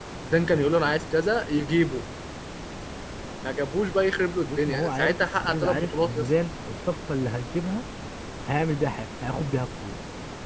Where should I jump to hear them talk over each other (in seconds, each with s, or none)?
4.5 s